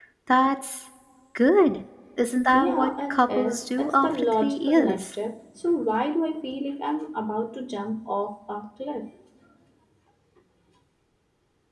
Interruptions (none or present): present